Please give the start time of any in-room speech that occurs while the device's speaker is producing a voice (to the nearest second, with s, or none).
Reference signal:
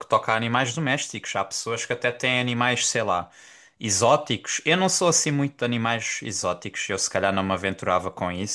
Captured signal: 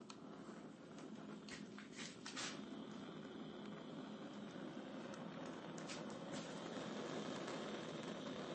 none